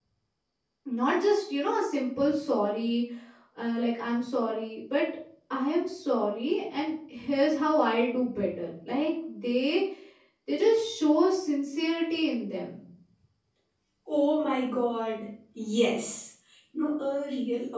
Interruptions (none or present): none